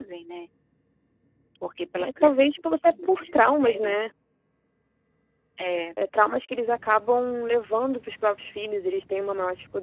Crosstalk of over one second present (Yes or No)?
Yes